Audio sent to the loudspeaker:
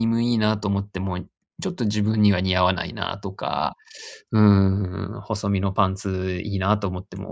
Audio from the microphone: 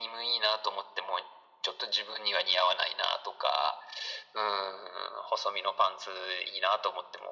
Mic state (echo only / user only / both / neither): echo only